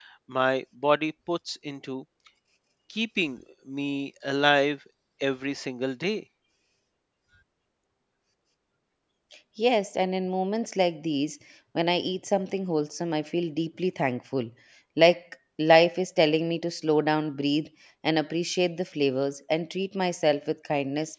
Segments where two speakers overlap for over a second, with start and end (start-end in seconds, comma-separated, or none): none